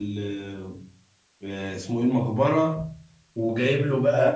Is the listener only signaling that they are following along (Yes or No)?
Yes